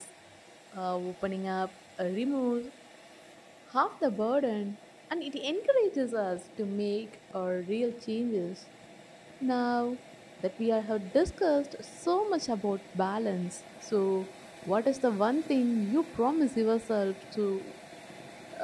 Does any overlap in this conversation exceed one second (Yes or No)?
No